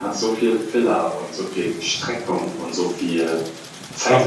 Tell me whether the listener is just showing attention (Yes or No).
Yes